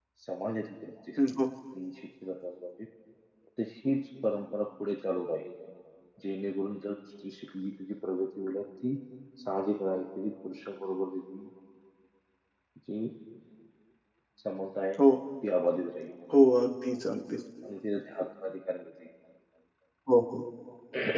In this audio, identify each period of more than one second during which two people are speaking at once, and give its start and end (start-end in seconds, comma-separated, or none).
none